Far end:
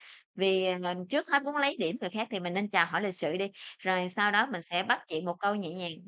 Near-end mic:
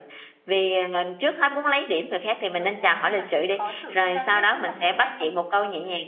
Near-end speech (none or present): present